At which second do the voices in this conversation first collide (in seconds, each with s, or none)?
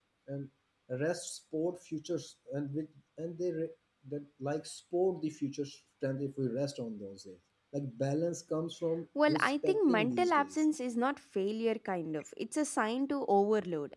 9.2 s